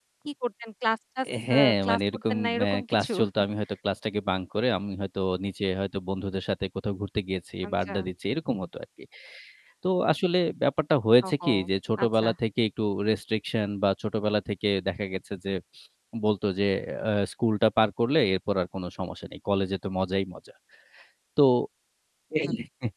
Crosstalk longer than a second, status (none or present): present